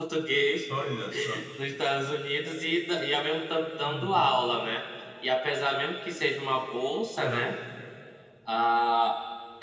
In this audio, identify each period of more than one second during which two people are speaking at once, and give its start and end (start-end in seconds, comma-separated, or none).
none